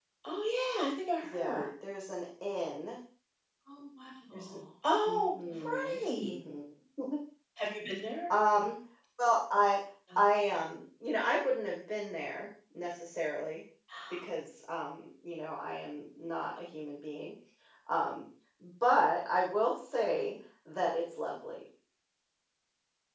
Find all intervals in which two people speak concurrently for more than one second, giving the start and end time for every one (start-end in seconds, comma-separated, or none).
5.1-6.3